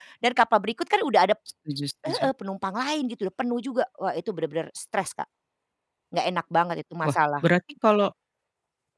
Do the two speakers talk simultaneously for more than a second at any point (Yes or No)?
No